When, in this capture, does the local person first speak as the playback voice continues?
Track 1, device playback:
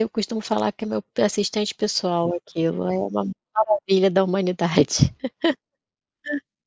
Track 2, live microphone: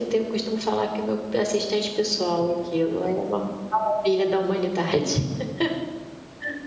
none

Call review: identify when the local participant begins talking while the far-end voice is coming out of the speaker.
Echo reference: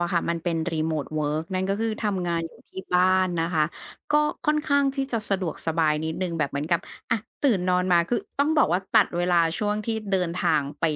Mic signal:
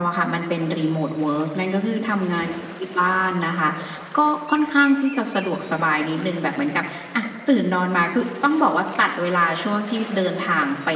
none

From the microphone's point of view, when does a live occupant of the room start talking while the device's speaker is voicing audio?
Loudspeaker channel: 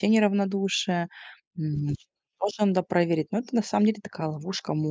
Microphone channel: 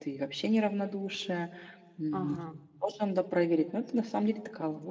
2.1 s

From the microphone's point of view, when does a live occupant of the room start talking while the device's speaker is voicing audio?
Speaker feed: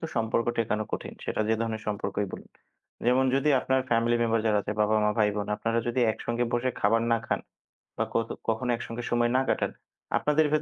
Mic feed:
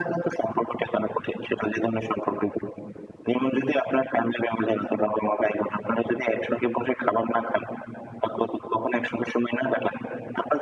none

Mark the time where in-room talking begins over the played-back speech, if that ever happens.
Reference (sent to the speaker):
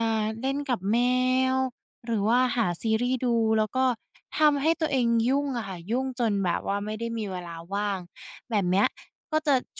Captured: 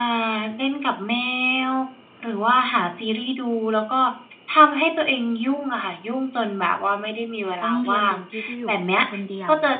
7.6 s

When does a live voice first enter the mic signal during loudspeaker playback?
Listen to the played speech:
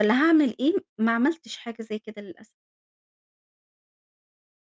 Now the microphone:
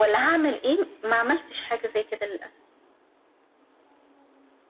none

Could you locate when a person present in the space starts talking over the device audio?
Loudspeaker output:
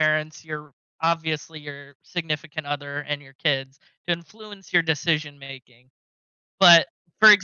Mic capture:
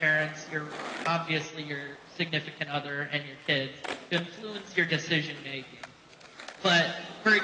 none

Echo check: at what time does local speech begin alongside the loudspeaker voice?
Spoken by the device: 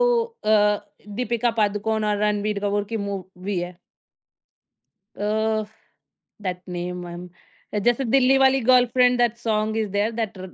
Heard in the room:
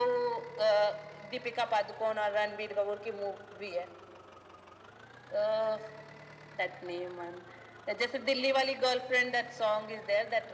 none

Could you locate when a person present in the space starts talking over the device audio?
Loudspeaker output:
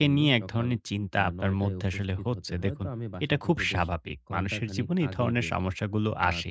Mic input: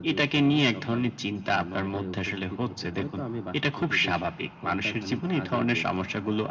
none

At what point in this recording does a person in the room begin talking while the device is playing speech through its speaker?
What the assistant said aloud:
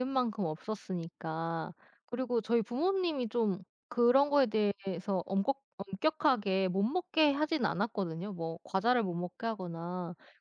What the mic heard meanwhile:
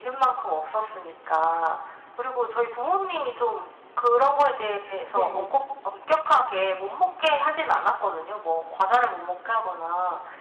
5.1 s

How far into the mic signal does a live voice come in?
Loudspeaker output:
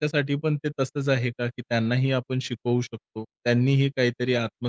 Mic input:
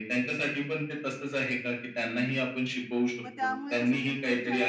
3.2 s

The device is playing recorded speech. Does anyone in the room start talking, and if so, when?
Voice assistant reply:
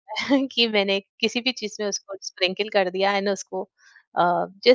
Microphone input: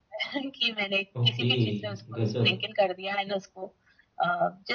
1.2 s

